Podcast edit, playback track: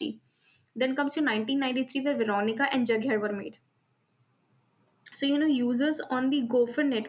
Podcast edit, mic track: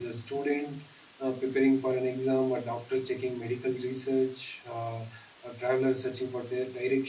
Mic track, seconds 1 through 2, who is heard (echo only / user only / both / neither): user only